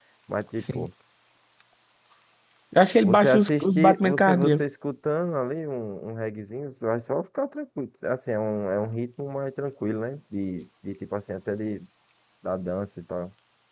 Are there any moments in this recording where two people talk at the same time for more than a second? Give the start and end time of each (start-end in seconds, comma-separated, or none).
3.0-4.6